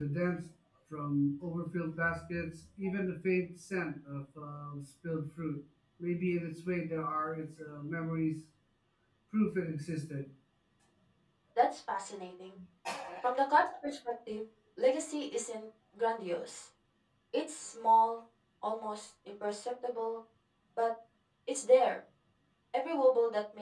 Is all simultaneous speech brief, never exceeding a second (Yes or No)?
Yes